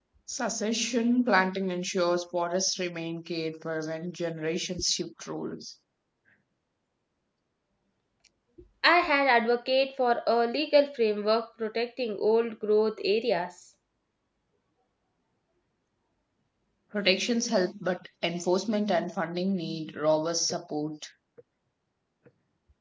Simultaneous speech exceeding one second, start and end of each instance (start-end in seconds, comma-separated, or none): none